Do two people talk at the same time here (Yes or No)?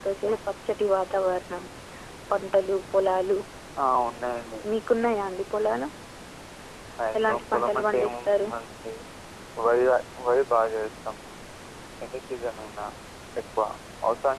Yes